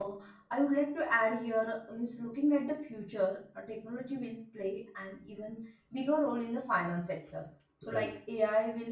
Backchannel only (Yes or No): Yes